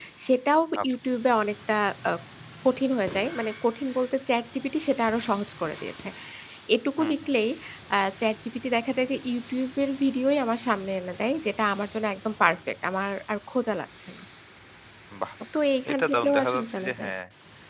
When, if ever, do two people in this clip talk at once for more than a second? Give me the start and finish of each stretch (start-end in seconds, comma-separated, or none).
15.9-17.1